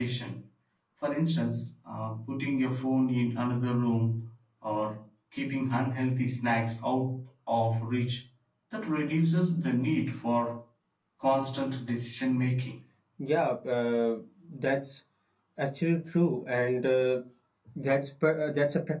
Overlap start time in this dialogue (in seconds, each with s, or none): none